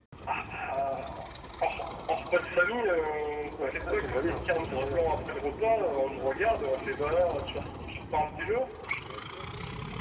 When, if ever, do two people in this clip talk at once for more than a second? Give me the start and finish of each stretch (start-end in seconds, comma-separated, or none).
3.6-5.0